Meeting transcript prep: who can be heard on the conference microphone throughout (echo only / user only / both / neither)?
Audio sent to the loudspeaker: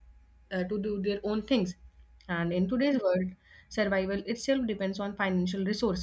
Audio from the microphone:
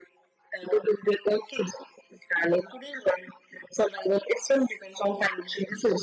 echo only